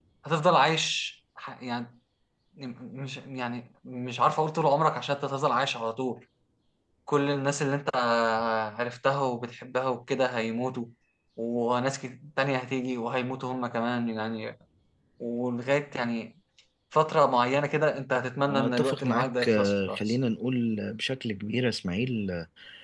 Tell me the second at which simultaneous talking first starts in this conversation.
18 s

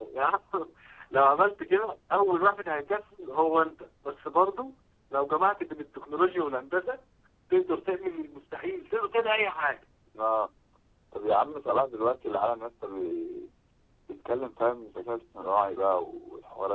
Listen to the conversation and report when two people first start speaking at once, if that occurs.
none

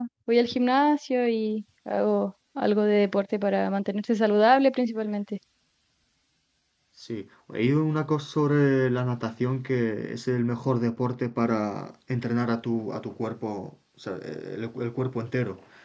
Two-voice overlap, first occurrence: none

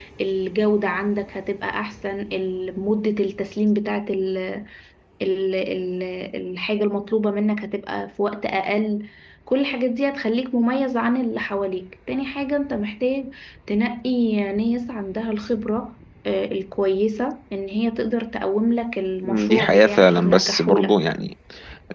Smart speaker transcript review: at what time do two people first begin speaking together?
19 s

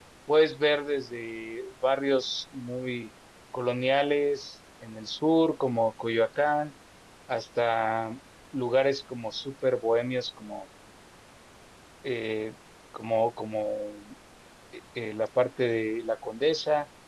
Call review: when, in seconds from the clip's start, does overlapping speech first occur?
none

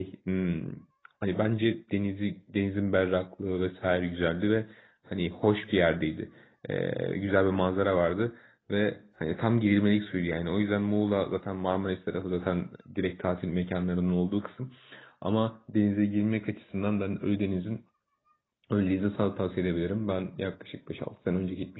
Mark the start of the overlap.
none

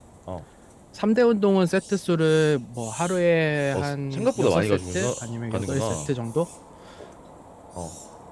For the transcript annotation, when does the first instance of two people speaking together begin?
4 s

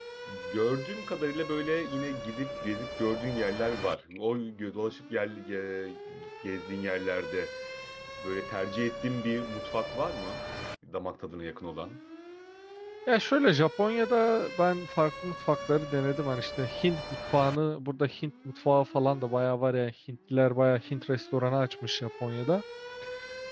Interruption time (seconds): none

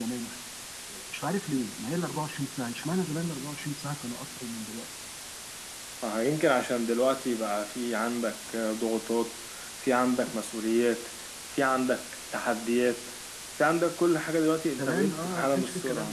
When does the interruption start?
15 s

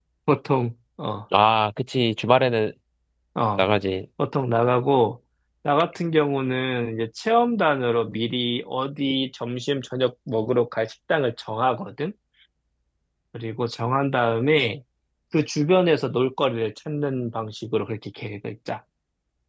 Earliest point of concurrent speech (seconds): none

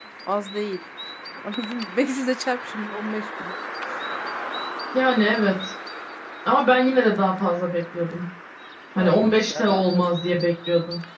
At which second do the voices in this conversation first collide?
9 s

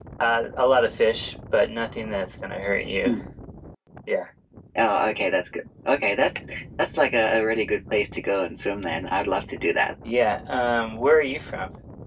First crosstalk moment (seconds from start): none

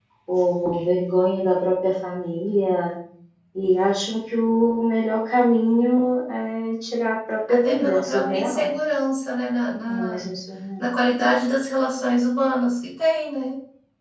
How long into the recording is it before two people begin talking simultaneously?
7 s

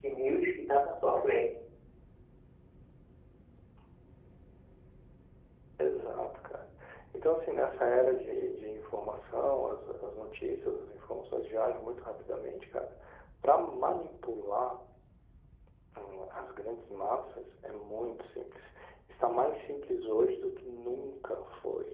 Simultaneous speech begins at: none

